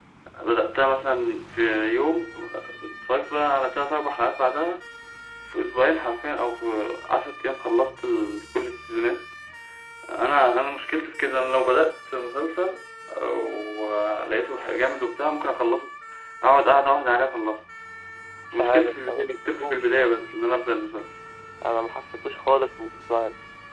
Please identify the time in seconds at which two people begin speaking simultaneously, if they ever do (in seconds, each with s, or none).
18.6 s